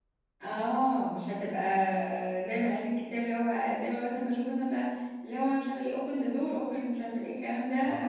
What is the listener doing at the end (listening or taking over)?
taking over